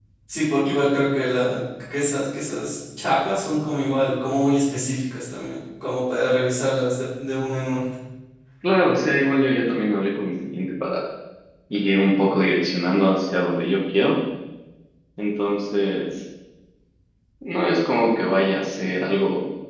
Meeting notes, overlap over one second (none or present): none